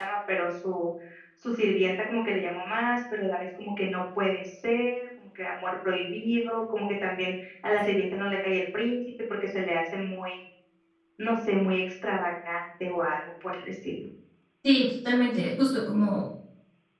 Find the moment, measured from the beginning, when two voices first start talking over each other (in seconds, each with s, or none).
none